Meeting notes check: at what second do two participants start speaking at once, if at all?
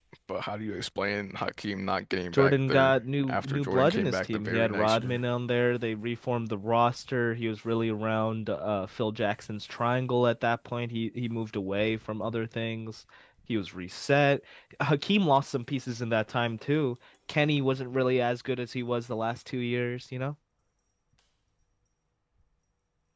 2.3 s

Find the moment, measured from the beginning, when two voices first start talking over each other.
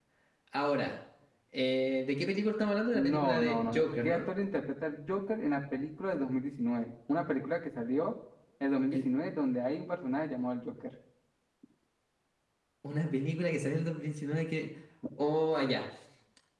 2.9 s

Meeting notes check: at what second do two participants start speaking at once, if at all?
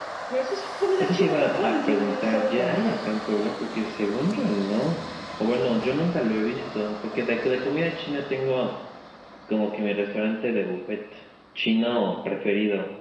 1.0 s

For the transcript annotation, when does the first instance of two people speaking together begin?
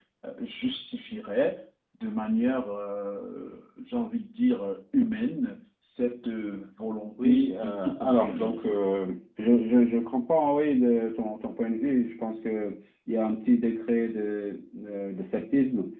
7.2 s

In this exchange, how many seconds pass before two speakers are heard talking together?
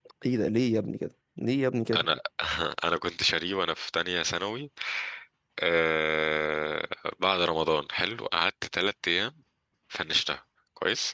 none

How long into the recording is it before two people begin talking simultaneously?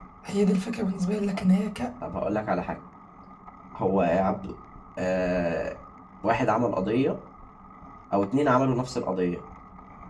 none

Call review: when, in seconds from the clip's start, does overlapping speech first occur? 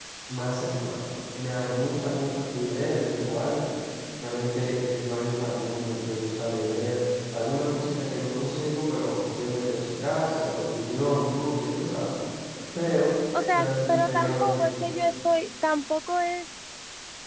13.5 s

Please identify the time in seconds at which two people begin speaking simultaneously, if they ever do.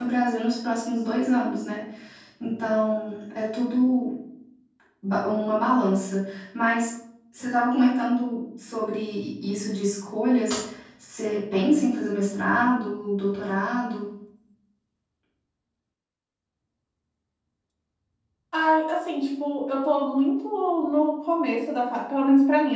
none

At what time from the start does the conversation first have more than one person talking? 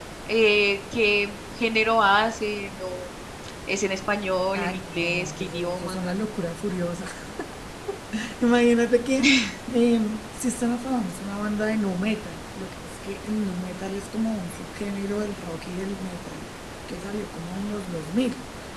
4.5 s

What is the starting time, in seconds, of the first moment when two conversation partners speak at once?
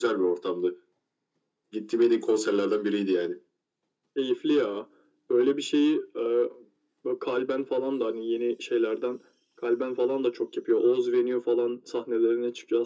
none

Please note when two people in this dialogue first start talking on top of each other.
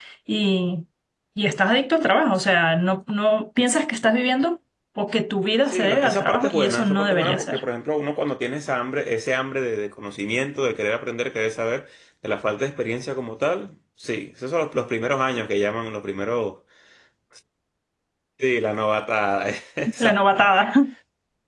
5.7 s

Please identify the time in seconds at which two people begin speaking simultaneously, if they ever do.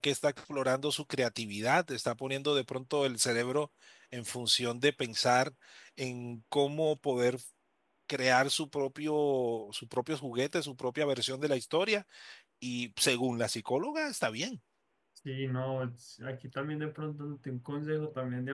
none

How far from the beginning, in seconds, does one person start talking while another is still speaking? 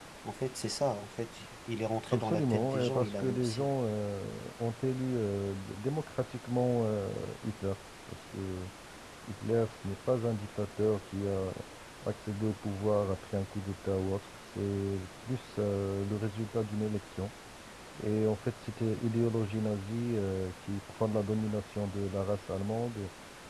2.1 s

